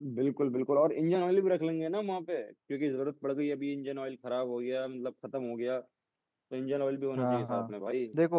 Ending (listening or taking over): taking over